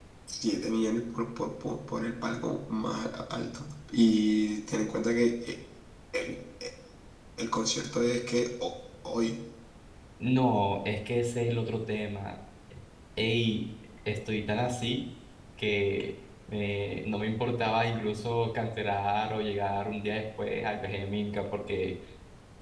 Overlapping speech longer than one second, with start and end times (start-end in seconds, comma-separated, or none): none